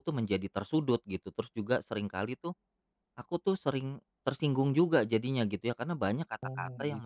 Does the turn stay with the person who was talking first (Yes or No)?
Yes